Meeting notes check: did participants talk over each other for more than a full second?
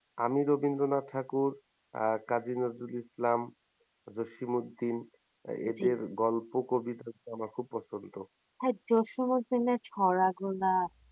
No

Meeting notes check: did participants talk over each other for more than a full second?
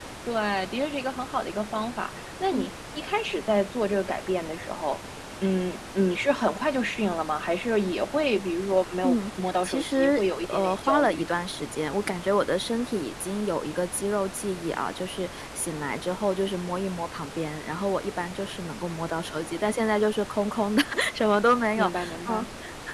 Yes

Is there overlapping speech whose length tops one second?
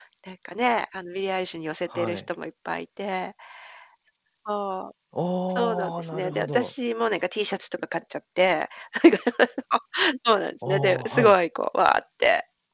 Yes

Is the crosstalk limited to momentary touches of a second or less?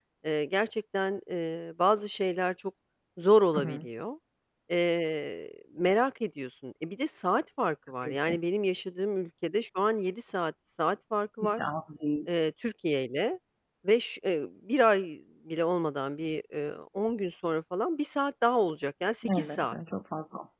Yes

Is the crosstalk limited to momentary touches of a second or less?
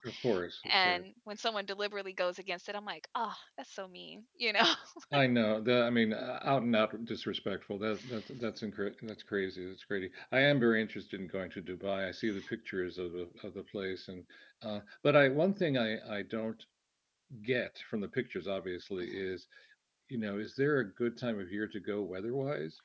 Yes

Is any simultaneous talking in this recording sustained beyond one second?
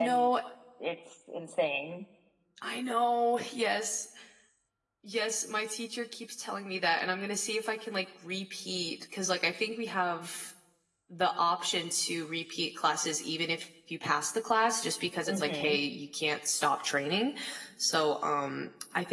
No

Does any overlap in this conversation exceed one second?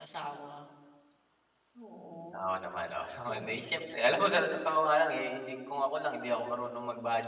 No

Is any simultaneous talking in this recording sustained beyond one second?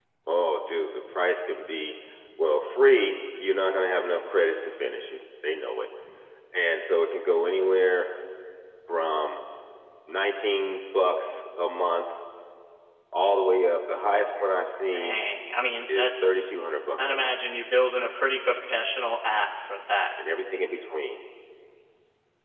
No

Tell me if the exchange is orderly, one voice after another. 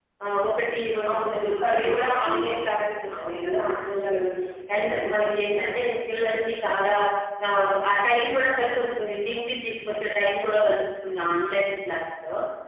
No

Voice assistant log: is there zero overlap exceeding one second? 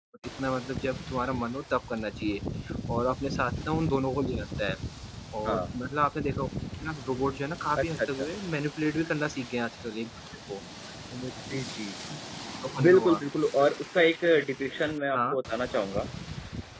Yes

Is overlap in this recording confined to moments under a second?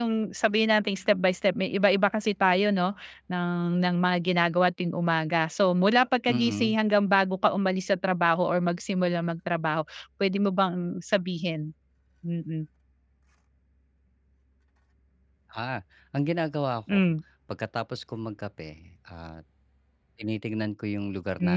Yes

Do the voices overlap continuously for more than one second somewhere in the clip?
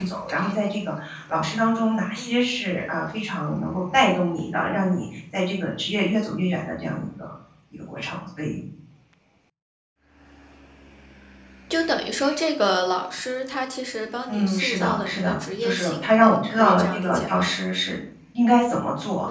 Yes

